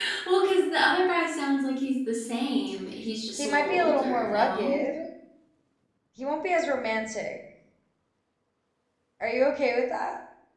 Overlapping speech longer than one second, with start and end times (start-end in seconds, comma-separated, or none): 3.4-4.8